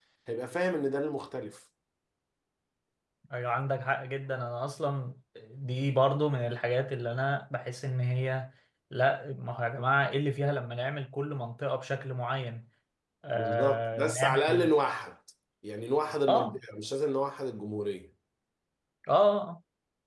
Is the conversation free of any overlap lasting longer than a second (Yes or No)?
No